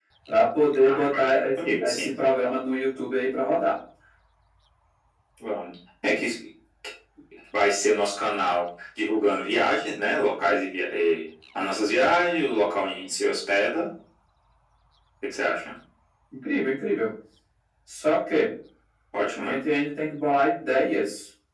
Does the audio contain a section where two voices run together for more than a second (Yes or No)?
Yes